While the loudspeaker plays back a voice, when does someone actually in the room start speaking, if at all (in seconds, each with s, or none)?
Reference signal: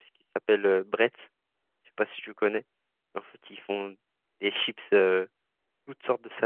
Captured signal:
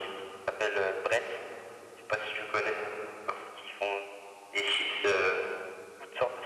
none